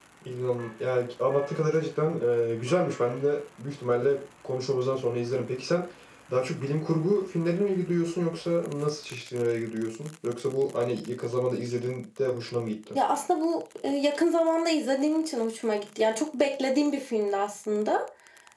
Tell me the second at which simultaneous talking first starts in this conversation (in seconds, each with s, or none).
none